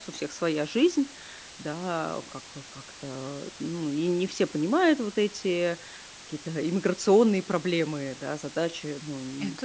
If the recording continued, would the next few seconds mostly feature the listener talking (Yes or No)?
No